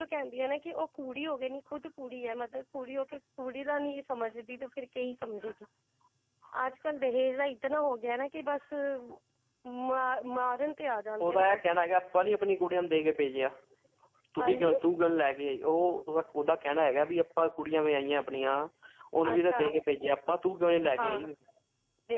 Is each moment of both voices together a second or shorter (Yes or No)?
Yes